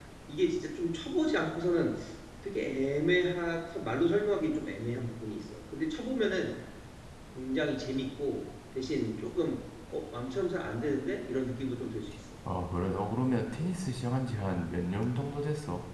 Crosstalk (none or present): none